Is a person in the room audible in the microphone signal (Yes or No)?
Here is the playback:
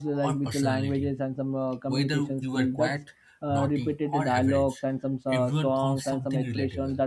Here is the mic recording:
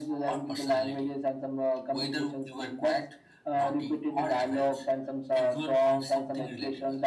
No